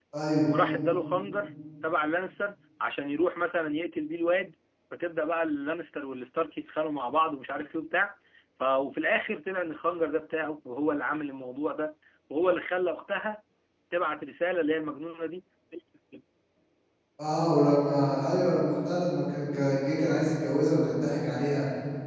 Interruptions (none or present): none